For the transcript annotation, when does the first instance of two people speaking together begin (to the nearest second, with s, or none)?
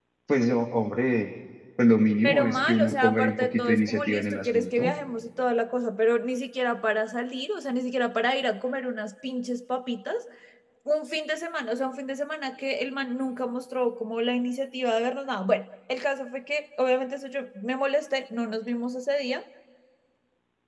2 s